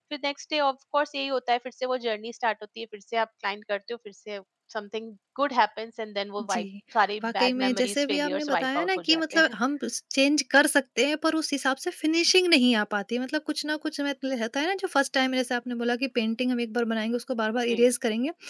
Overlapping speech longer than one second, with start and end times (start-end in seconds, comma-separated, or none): 7.2-9.5